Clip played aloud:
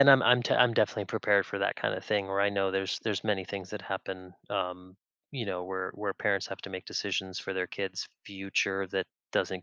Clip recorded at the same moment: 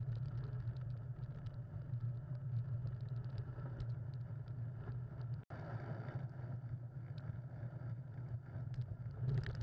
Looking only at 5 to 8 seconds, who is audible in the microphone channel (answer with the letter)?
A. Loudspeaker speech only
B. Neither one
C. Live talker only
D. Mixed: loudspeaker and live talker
B